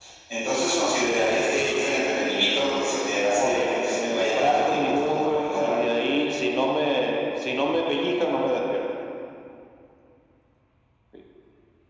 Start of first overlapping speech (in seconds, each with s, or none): 3.4 s